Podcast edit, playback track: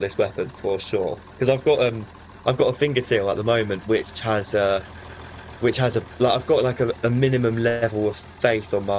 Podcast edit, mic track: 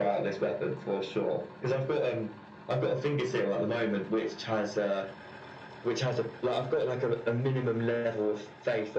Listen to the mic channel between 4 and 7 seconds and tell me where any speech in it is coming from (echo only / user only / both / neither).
echo only